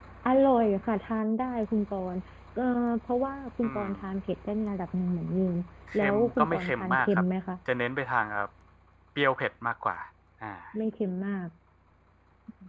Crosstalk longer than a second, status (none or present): present